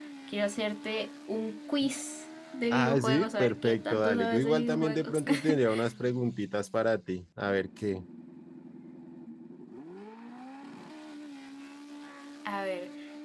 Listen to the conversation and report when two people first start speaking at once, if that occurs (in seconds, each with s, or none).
2.7 s